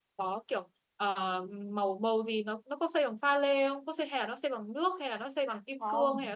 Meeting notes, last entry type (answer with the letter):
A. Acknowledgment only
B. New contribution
B